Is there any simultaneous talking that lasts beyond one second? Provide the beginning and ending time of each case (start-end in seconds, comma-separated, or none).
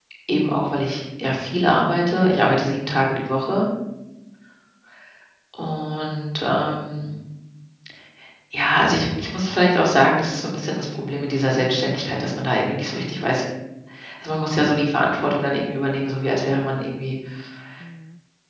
1.6-2.8